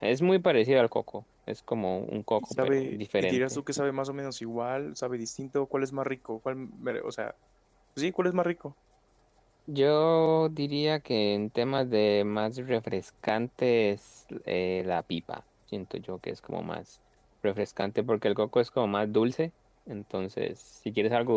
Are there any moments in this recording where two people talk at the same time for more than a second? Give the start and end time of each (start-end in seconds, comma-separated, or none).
2.4-3.6